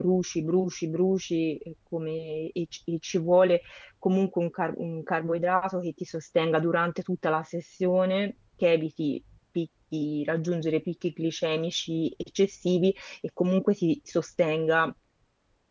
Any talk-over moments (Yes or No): No